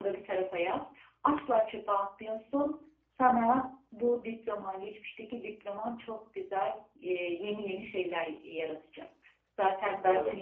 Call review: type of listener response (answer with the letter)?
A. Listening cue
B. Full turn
A